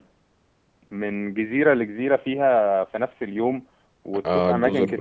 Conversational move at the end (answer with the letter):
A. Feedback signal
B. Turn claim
B